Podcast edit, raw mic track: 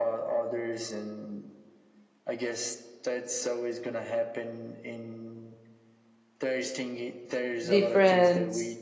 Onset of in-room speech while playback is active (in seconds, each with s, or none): 7.7 s